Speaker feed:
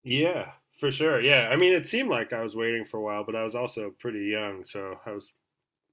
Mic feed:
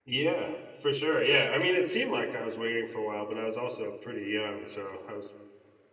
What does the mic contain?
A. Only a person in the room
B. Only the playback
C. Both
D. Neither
B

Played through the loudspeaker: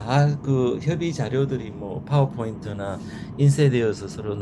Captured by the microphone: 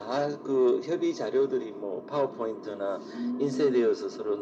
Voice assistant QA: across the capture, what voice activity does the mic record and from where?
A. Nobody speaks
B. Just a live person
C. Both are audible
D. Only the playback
C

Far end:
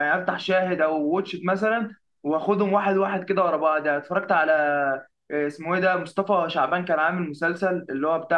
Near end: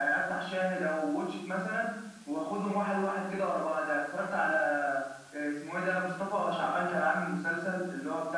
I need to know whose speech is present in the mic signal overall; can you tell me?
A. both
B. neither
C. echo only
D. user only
C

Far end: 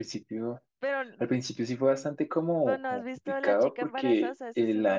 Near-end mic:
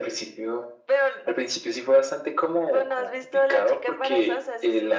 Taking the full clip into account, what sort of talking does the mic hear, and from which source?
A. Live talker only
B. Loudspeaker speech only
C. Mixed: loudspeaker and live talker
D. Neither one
B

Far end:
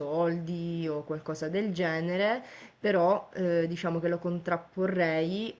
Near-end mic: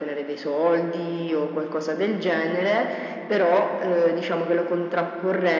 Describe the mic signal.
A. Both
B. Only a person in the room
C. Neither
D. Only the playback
D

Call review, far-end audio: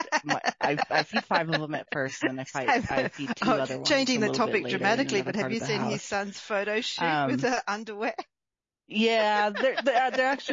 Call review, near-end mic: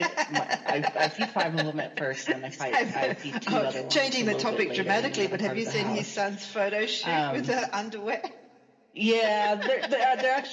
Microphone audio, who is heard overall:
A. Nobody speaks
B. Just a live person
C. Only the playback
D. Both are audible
C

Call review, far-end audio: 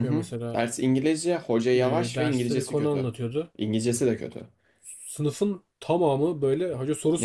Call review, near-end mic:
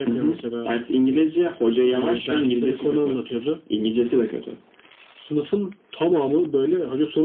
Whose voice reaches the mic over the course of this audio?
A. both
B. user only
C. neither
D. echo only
D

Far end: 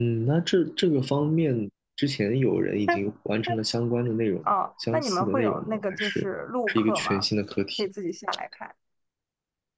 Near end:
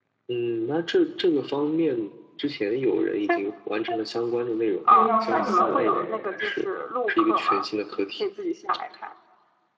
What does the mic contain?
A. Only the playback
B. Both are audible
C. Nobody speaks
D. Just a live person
B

